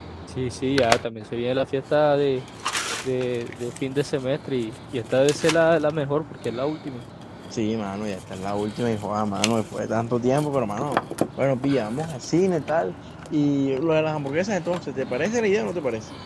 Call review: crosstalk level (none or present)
none